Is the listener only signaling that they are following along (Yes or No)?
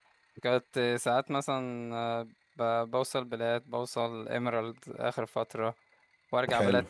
Yes